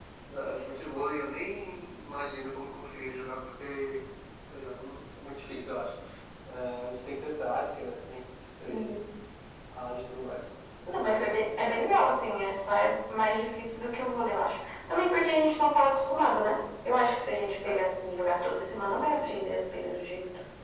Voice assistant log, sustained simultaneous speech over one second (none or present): none